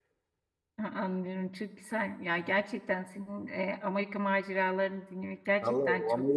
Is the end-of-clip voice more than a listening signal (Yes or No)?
Yes